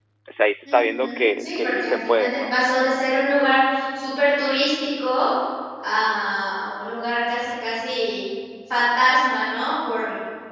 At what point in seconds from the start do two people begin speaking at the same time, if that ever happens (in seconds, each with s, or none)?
0.7 s